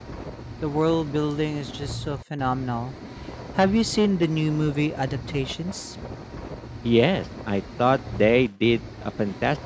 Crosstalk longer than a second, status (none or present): none